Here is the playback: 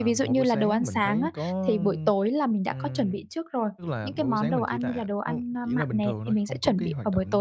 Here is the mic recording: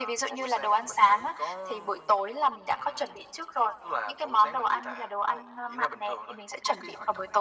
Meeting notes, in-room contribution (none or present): none